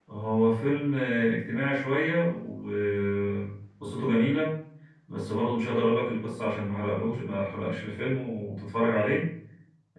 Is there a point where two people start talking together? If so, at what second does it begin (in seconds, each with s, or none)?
none